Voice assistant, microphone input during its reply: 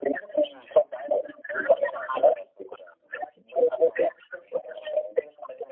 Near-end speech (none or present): none